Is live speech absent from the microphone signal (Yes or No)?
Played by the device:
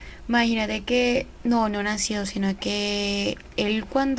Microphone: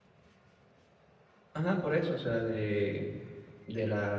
No